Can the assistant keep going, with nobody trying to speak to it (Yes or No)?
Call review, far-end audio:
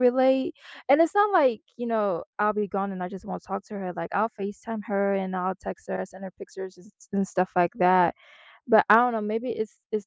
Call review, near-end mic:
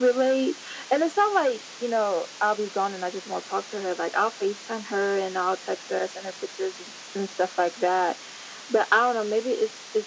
Yes